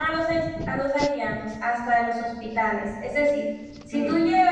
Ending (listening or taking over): listening